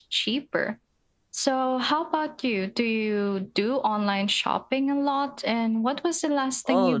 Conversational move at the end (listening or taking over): taking over